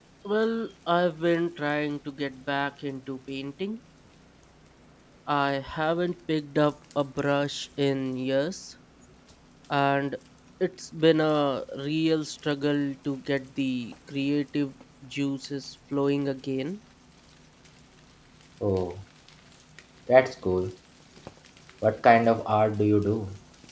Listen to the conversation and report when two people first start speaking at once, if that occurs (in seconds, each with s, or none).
none